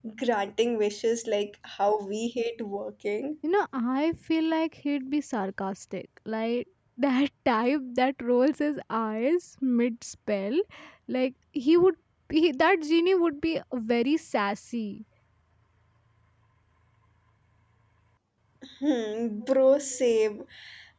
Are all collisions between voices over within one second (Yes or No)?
Yes